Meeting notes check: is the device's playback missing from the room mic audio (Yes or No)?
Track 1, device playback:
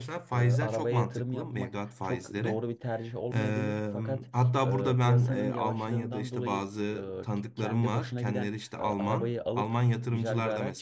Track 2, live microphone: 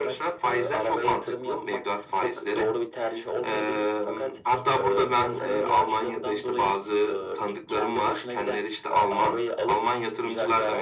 No